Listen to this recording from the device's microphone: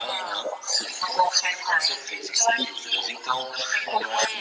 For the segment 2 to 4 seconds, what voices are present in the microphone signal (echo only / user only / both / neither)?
echo only